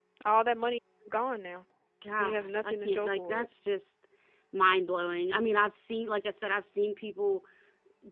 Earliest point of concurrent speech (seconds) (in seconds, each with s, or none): 2.2 s